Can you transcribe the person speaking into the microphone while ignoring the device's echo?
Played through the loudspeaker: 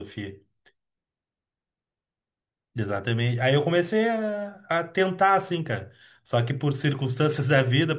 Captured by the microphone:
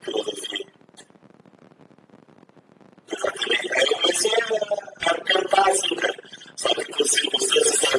none

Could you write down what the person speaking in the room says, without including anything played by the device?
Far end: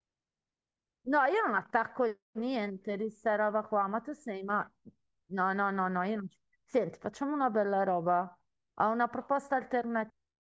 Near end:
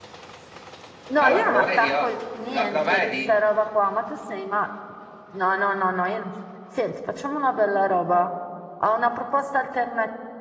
Allora, lo vedi? oh? Lo, lo vedi?

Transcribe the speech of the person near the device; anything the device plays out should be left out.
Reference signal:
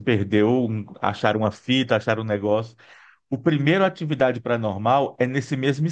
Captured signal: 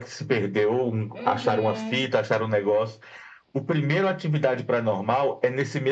Uhum.

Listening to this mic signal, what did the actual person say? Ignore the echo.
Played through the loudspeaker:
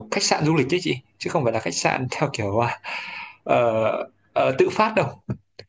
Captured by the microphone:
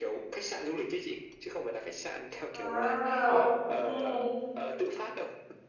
À, ok.

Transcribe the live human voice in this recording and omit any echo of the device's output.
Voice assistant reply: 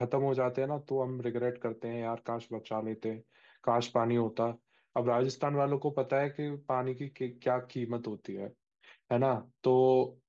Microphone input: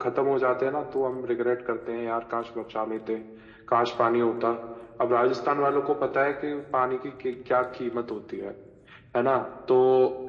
none

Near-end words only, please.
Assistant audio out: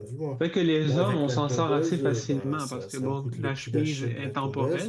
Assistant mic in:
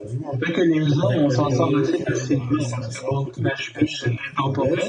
Et euh, hum,

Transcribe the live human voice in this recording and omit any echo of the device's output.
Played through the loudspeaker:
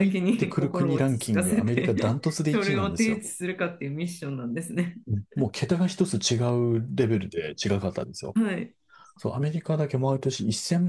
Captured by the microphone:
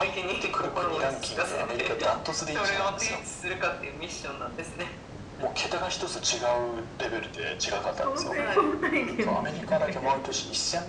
その成功体験だけで、

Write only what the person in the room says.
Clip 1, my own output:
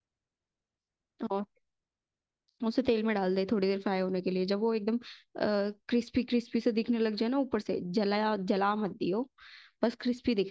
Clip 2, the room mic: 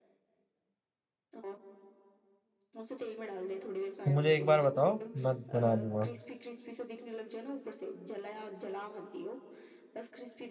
तुम मुझे एक बार बताओ मैं बना दूंगा

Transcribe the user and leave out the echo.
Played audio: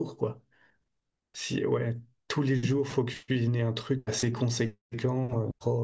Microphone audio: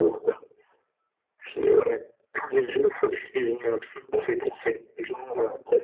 none

